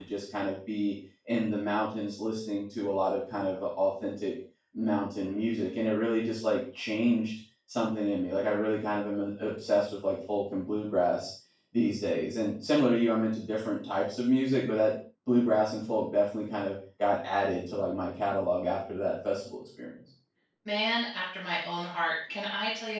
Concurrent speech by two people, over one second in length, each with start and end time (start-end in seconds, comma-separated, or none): none